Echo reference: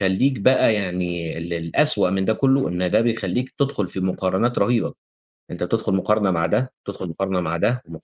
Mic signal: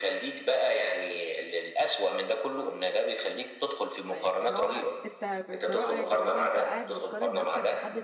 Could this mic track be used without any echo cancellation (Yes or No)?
No